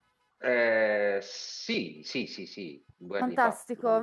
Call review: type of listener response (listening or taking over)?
taking over